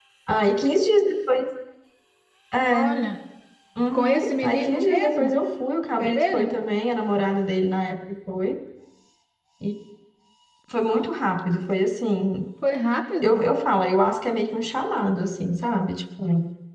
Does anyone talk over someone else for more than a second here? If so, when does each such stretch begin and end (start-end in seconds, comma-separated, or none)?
3.9-5.3